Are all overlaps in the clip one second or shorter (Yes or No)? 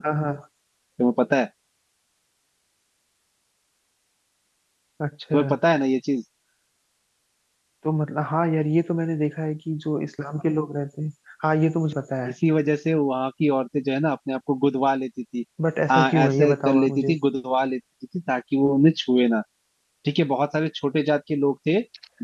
No